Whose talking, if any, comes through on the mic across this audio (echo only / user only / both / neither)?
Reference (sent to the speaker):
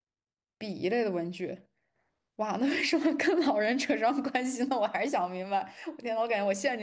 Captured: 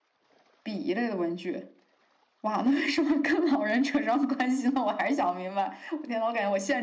echo only